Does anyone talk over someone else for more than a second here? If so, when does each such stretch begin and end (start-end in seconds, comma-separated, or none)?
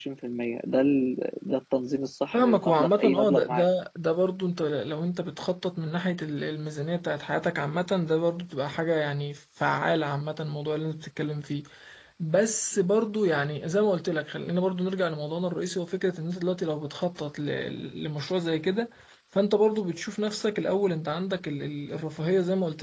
2.3-3.7